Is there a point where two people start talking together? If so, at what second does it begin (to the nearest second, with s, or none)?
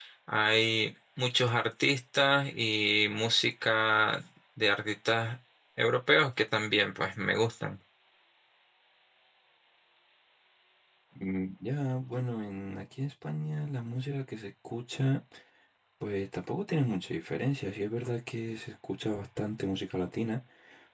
none